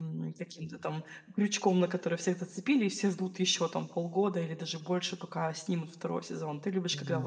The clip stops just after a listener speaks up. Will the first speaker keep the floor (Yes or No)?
No